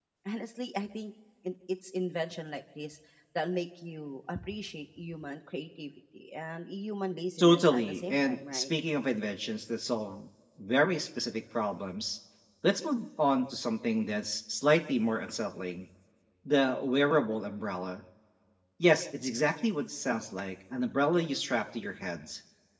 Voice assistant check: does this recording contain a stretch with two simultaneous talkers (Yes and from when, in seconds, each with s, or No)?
Yes, from 7.4 s